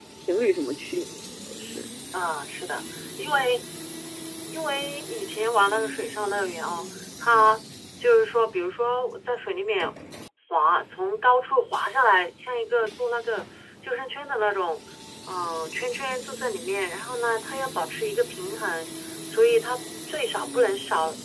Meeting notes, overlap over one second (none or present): none